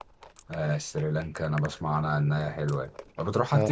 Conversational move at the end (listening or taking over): taking over